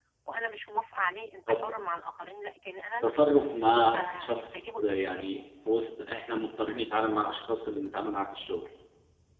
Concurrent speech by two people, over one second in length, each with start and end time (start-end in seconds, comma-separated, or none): 3.9-5.4